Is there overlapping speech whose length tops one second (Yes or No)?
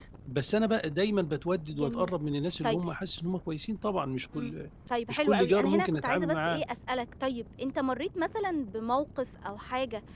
Yes